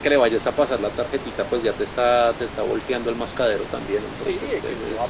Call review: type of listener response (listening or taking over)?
taking over